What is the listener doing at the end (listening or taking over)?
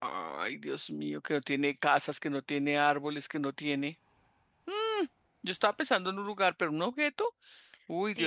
taking over